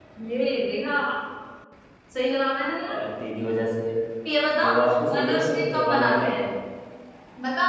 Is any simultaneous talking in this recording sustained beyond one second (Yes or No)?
Yes